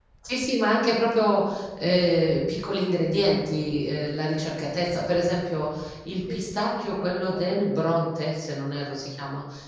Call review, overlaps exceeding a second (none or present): present